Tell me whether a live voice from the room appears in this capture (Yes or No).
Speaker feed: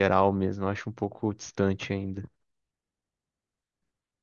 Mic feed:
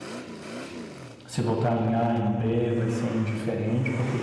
Yes